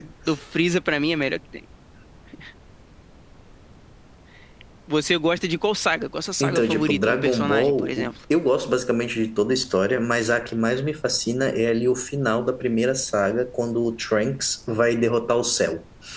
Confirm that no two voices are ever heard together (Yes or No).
No